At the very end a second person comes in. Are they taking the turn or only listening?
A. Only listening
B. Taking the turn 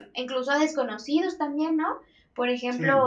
A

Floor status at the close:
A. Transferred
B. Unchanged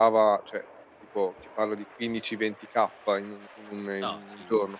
B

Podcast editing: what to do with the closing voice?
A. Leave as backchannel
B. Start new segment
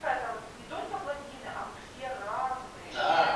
B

